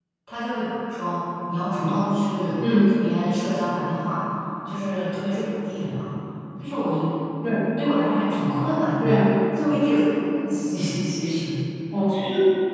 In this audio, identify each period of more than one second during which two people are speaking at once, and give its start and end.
none

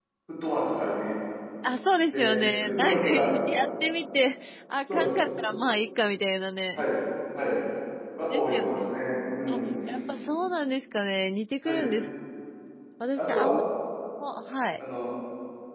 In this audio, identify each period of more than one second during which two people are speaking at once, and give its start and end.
2.1-3.3

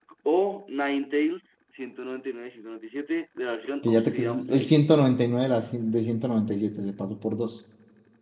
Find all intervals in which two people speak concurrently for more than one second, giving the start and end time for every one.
3.8-5.2

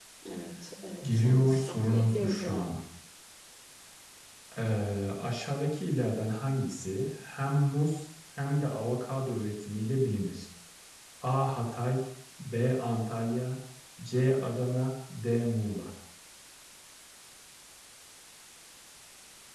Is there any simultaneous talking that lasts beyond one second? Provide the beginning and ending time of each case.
1.0-2.6

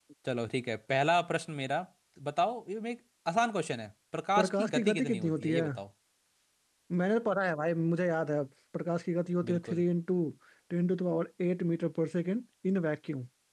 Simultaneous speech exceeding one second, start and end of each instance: 4.4-5.7

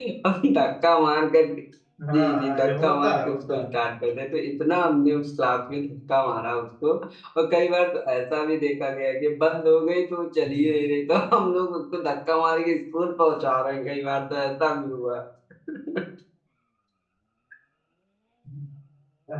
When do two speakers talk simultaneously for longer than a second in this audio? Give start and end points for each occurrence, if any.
2.1-3.7

